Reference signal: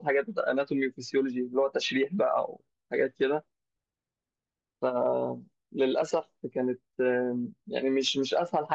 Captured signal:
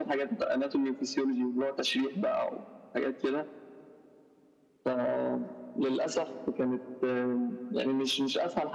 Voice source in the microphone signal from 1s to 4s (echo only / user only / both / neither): echo only